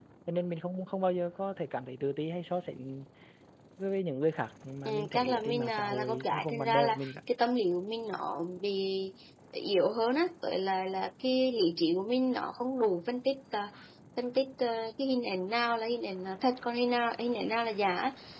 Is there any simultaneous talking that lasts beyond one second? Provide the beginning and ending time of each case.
4.9-7.1

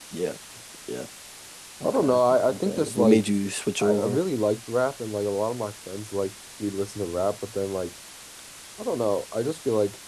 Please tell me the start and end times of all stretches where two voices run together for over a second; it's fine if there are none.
1.8-3.2

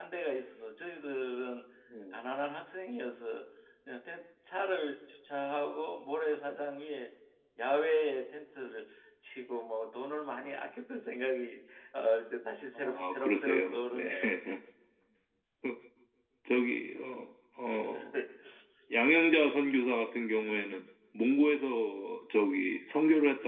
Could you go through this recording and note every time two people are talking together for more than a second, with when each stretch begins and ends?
12.7-14.1

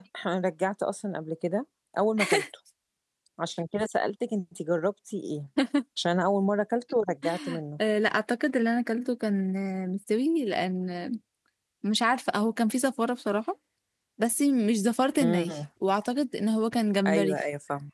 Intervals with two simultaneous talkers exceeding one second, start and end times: none

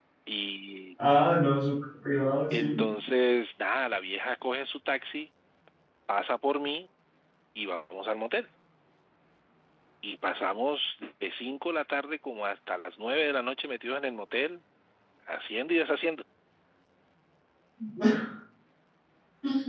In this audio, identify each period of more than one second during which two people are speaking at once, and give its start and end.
none

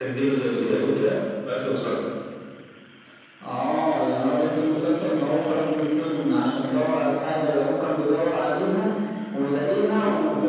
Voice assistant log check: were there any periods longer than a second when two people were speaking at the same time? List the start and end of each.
none

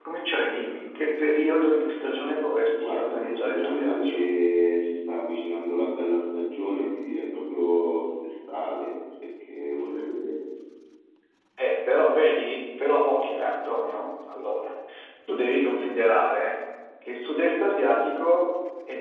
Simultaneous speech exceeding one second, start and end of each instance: 2.7-4.3

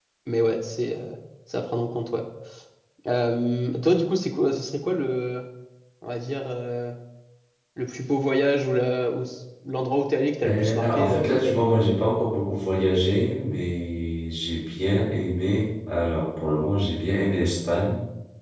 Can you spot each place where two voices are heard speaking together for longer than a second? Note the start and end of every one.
10.5-11.7

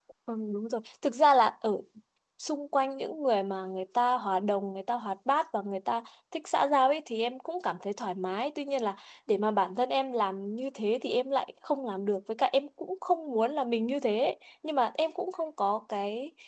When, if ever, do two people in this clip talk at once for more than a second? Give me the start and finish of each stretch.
none

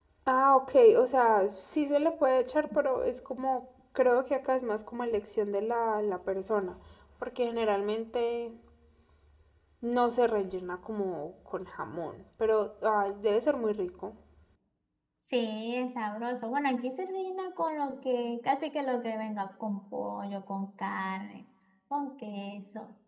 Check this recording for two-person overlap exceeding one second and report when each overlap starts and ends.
none

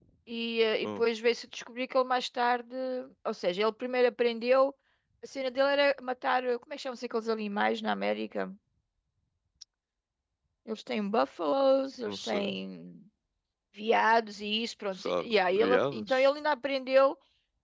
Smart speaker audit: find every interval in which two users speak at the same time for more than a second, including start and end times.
15.0-16.3

